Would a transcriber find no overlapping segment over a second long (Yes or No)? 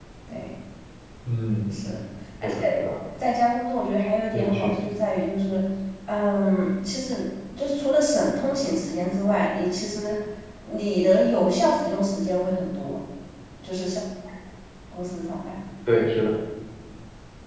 Yes